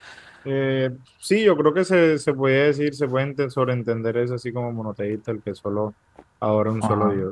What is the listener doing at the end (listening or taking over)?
taking over